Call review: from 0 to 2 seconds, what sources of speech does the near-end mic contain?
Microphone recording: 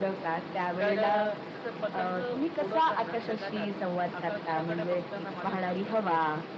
echo only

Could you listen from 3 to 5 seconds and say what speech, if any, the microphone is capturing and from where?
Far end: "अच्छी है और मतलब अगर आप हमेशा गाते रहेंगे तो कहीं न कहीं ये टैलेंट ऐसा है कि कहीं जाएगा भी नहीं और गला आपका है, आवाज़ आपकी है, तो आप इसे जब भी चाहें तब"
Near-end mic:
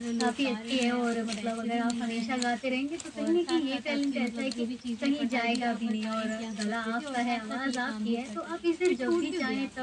both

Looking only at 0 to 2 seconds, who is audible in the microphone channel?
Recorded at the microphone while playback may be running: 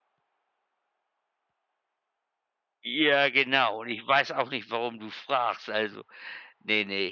neither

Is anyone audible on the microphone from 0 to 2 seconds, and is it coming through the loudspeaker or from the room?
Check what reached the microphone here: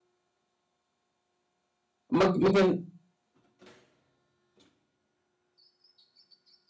neither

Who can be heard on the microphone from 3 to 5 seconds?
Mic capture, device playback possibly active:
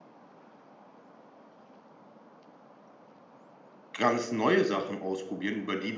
user only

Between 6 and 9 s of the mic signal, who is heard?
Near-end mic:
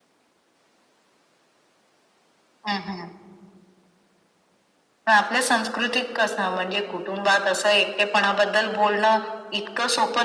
echo only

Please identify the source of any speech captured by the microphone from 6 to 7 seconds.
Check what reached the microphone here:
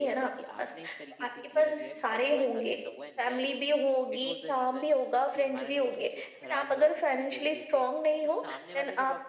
both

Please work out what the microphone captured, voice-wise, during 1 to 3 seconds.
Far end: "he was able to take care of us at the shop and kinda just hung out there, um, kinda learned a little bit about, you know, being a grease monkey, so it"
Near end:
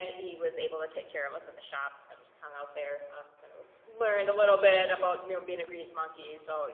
echo only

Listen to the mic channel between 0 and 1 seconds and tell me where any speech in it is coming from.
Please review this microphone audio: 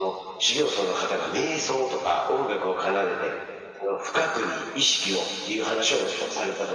echo only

